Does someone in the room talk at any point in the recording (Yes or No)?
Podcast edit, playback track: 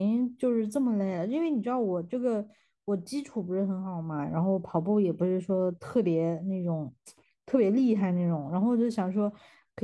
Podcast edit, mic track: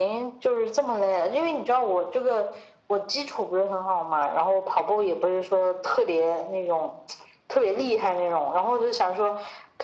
No